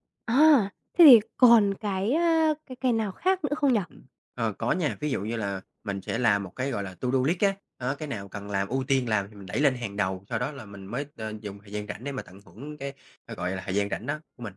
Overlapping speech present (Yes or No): No